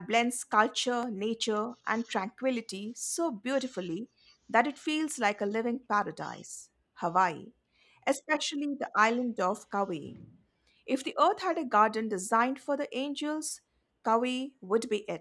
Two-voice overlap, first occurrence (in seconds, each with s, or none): none